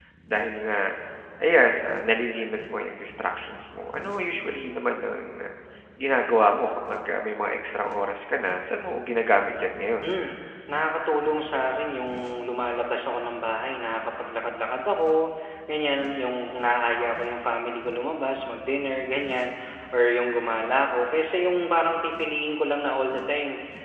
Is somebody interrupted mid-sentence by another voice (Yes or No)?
No